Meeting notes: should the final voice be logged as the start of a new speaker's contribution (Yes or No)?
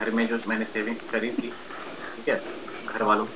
No